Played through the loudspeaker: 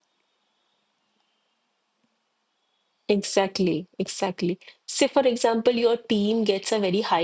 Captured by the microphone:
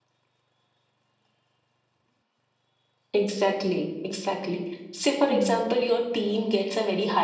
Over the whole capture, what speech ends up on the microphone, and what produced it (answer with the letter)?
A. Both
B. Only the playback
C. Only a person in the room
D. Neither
A